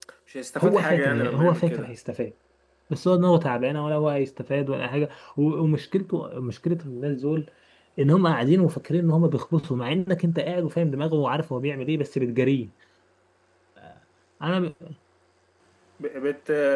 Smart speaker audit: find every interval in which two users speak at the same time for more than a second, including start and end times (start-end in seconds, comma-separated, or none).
0.6-1.9